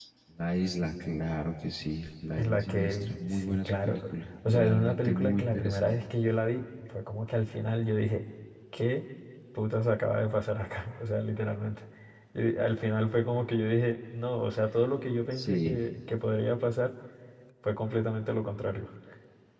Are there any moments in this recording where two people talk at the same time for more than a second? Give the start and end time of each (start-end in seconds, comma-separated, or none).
2.4-4.0, 4.5-6.0